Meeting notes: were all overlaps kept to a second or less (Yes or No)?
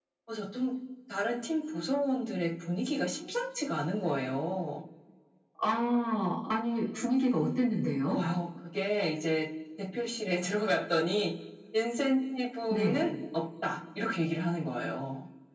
Yes